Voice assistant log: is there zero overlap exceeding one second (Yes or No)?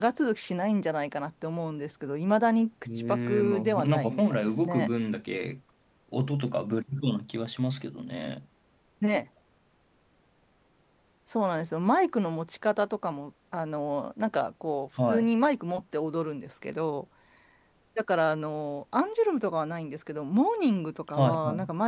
No